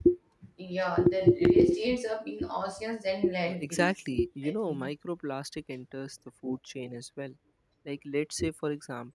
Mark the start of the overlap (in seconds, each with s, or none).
3.5 s